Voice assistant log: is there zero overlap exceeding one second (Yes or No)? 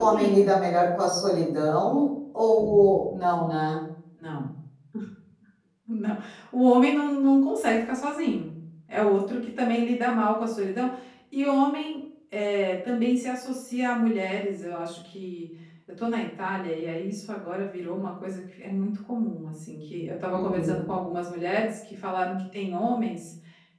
Yes